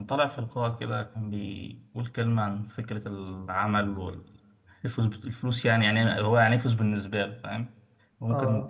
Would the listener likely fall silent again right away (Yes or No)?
No